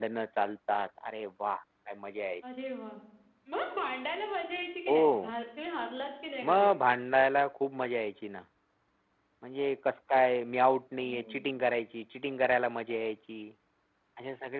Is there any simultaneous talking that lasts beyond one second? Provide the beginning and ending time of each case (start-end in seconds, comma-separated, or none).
none